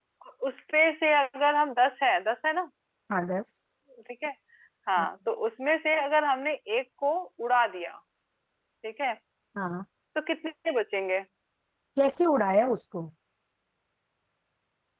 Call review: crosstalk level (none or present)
none